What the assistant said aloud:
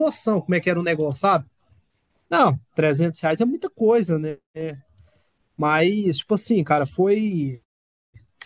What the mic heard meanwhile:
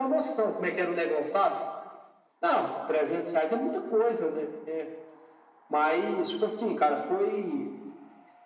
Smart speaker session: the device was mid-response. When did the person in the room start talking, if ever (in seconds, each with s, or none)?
none